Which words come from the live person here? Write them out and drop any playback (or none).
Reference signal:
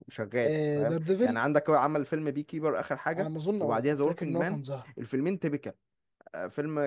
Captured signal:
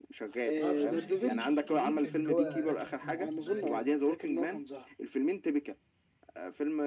ما اعرفش انا اخر فيلم شفته ليه كان هو راث اوف مان ده كان